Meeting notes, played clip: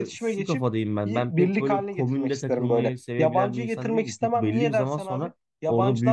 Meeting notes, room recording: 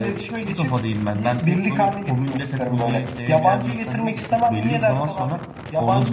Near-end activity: none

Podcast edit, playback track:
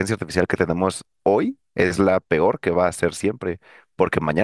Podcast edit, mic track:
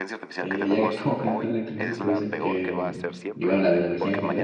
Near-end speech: present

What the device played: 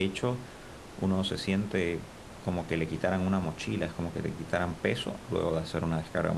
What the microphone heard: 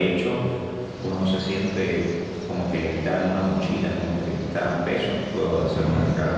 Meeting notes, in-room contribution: none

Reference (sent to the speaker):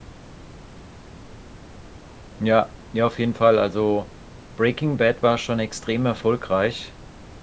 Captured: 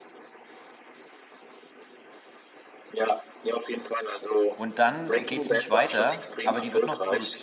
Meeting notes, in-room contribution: present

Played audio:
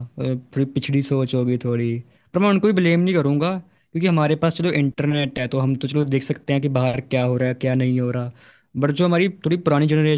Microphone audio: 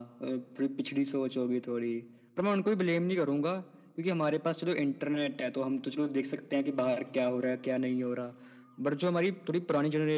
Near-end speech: none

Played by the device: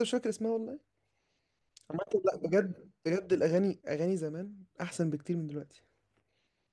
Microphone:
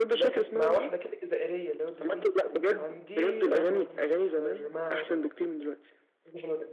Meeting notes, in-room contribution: present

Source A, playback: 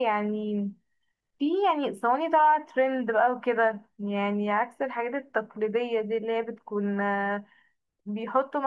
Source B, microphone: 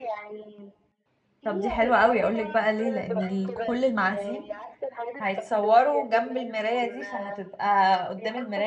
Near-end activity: present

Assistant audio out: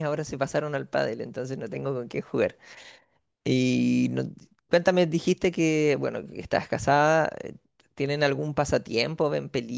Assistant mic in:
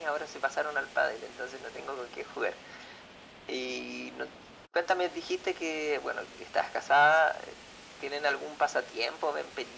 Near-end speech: none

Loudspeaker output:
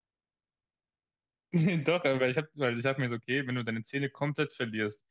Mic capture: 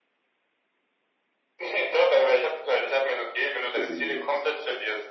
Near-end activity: present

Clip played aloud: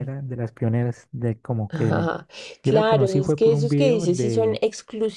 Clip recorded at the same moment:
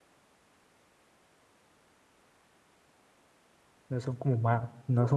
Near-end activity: present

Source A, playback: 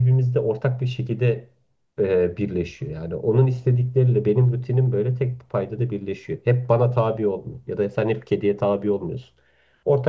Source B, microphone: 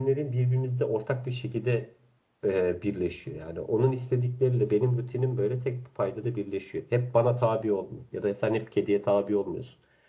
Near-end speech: none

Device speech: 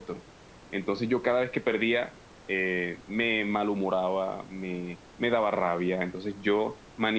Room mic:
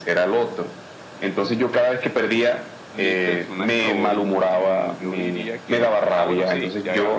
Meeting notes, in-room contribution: present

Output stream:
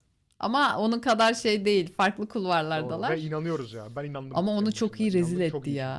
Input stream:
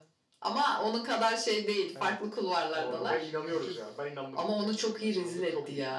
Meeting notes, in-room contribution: present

